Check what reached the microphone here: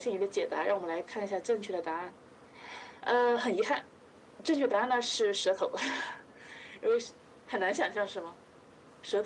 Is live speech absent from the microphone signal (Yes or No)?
Yes